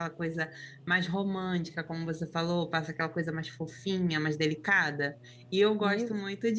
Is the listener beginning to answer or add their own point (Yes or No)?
No